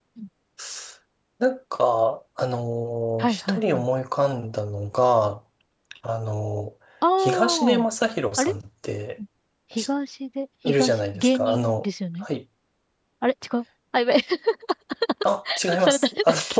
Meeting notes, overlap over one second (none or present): present